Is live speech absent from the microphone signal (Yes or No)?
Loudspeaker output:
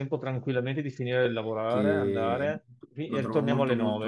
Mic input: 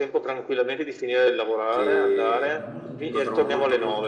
No